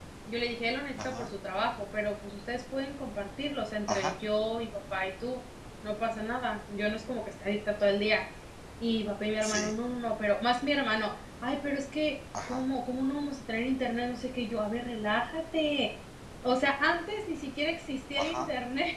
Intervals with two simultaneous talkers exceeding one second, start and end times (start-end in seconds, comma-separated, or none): none